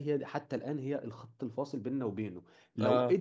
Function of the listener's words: listening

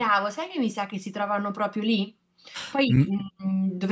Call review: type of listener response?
listening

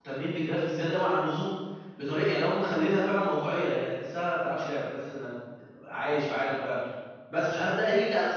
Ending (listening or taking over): listening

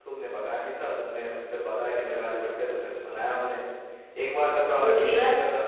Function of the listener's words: listening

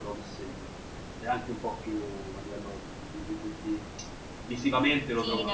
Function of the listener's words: taking over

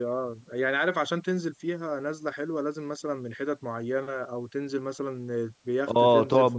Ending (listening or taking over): taking over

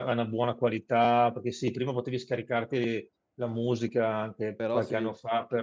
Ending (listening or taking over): listening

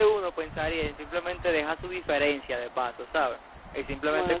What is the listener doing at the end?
listening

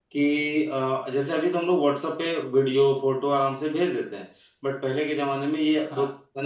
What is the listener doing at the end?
listening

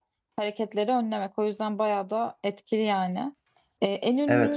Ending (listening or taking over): listening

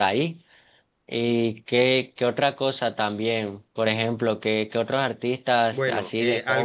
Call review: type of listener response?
taking over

